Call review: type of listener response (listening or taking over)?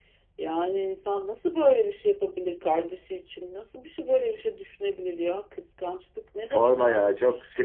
taking over